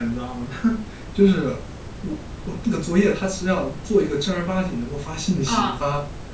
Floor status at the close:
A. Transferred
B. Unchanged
B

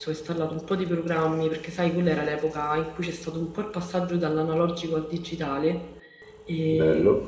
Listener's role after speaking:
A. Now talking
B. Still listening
B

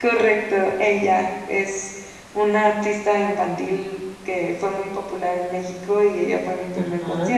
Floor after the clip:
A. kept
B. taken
A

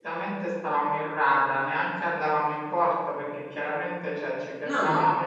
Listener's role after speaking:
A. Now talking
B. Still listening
B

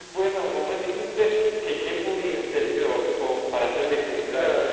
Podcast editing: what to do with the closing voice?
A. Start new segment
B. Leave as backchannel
A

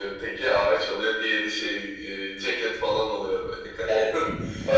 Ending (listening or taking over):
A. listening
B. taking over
B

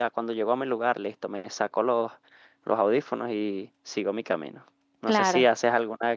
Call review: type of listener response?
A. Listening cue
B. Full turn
A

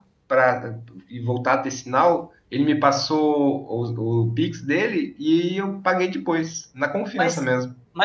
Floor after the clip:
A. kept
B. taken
B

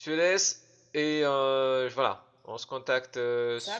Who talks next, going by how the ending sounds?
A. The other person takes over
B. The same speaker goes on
B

